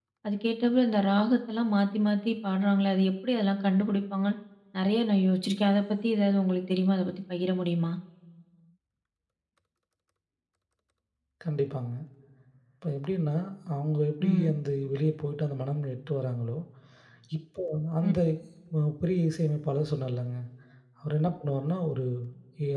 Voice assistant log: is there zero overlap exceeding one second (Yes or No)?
Yes